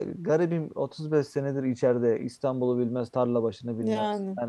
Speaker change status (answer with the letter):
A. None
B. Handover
A